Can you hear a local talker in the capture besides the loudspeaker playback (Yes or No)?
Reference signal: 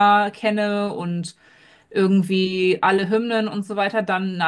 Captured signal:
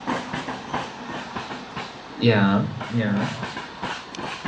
Yes